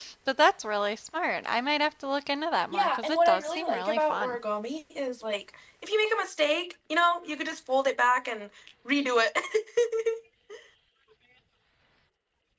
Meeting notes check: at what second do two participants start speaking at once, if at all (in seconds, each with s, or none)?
2.7 s